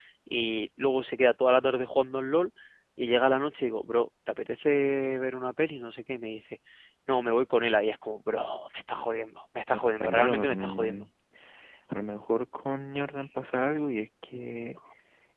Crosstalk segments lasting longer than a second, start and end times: 9.7-11.0

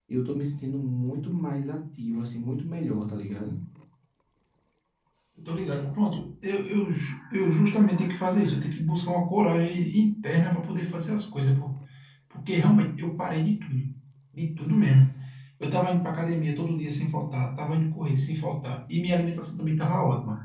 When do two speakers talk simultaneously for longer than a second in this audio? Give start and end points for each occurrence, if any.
none

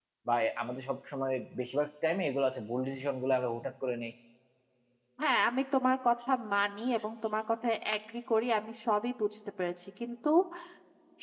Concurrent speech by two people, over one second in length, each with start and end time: none

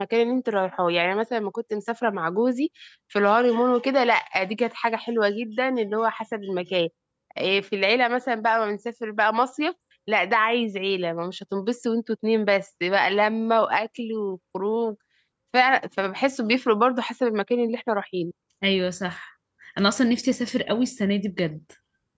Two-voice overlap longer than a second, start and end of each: none

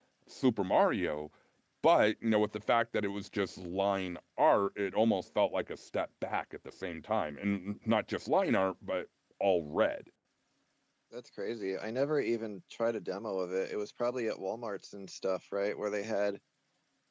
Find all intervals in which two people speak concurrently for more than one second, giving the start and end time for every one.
none

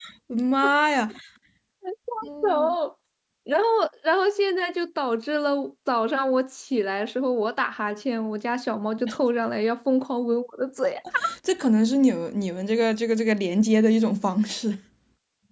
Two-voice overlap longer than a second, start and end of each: none

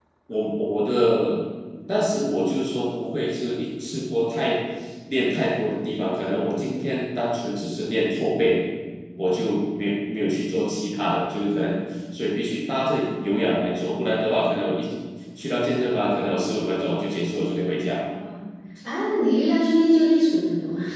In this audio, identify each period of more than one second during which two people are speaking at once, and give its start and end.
none

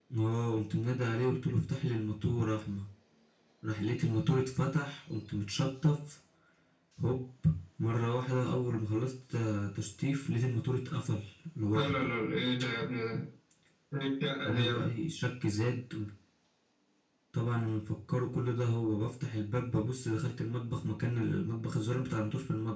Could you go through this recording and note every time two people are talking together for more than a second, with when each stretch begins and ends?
none

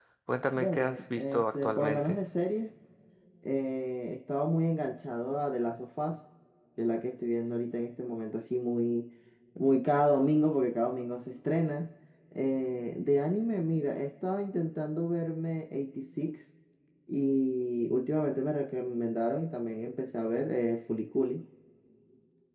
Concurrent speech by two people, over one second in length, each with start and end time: 0.6-2.2

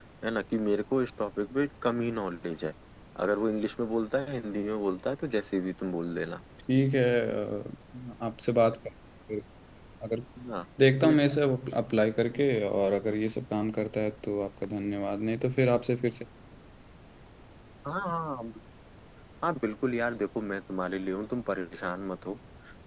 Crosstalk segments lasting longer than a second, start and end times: none

